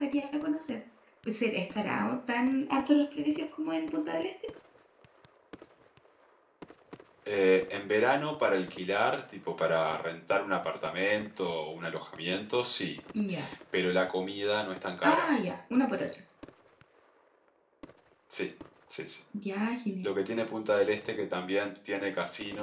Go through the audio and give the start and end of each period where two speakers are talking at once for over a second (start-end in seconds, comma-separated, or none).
none